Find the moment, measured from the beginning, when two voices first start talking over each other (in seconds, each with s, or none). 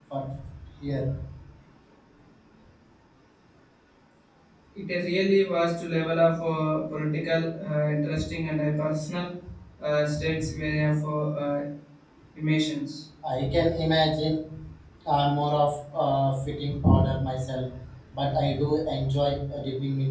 none